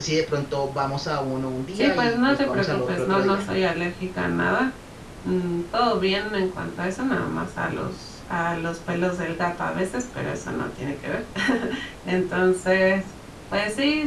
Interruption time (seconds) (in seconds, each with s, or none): 1.7 s